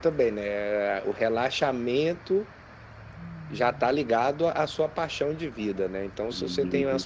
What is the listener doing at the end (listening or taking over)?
listening